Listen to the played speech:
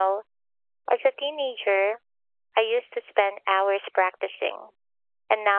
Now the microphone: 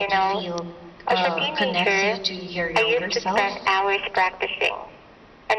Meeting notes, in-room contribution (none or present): present